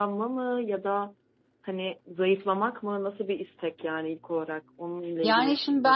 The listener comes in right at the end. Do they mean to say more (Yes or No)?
Yes